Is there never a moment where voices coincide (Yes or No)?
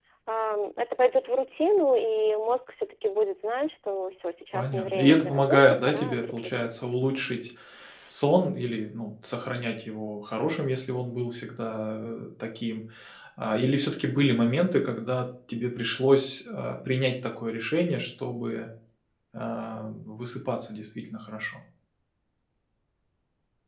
No